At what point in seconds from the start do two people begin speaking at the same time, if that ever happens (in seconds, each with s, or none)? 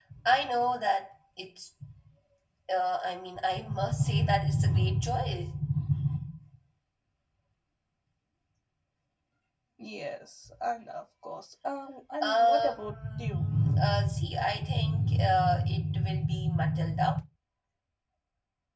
12.2 s